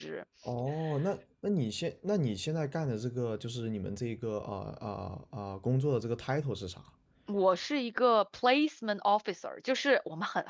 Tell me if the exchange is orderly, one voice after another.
Yes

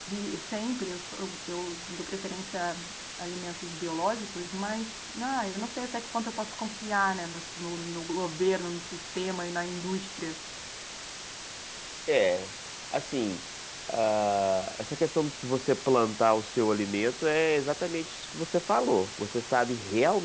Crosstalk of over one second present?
No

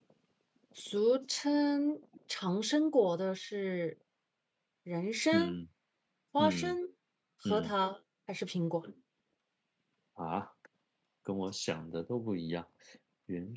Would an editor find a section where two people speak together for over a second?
No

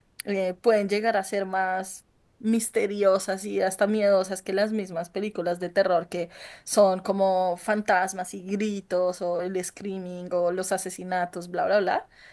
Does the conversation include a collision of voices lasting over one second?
No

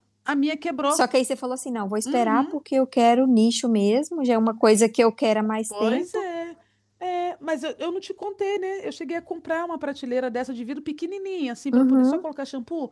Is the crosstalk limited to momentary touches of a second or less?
Yes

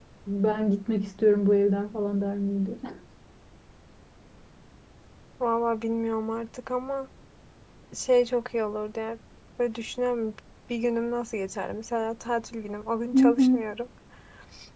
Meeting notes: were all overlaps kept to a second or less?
Yes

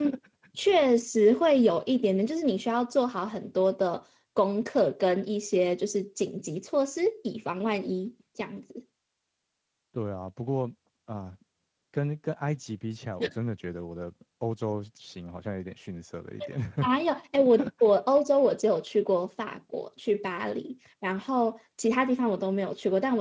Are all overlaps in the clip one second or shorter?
Yes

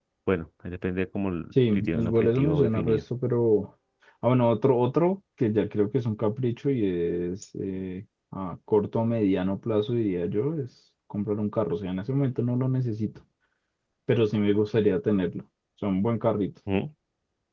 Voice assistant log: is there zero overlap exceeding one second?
No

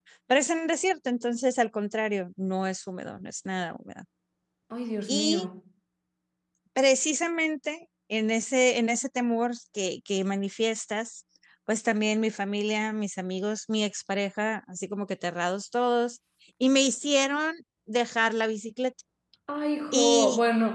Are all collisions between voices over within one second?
Yes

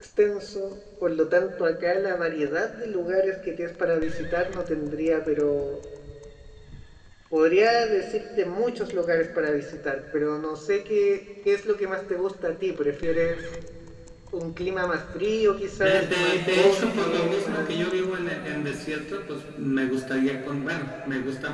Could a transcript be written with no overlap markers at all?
No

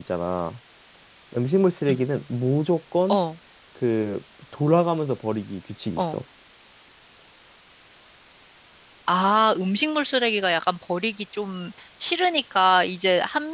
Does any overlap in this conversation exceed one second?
No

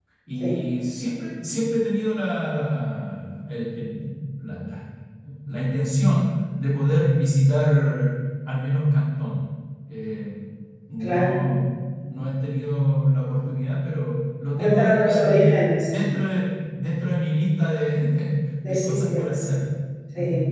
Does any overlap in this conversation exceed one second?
Yes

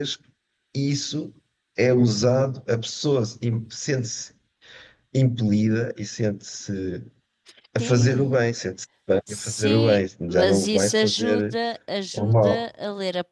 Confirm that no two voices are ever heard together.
No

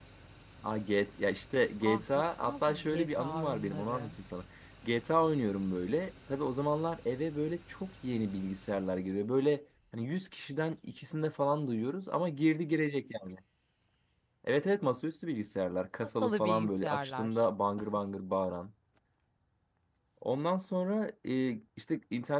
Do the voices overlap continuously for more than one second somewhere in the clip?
Yes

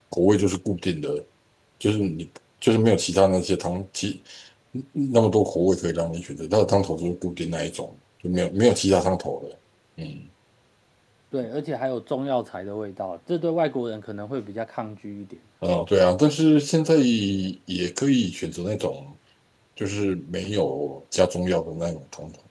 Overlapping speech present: No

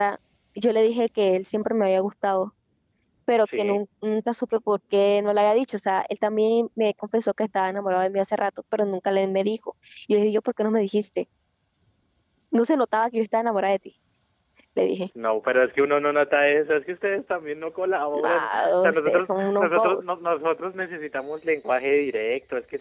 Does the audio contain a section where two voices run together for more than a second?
Yes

